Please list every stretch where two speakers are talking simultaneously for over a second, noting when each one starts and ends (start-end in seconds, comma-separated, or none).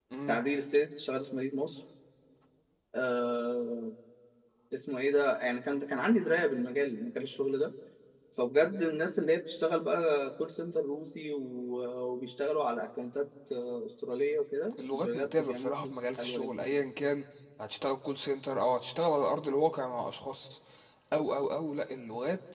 14.9-16.8